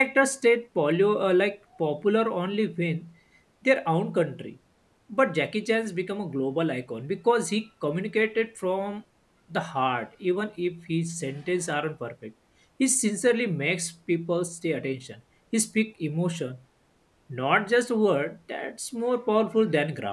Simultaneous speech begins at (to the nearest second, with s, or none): none